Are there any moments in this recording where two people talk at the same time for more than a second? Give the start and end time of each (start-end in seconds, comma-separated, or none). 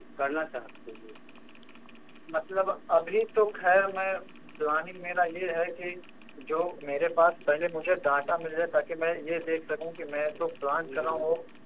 none